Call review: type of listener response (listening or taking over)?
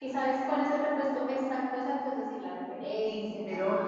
taking over